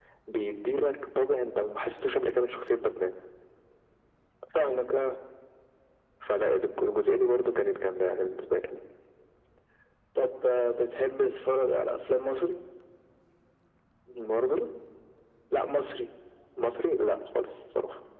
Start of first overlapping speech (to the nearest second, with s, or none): none